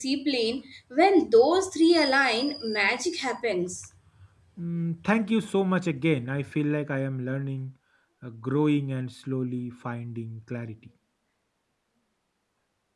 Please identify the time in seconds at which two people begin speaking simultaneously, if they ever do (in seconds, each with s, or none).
none